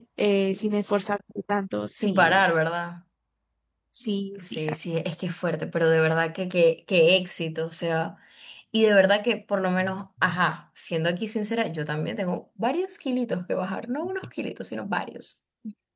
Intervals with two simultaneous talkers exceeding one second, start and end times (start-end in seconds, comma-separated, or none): none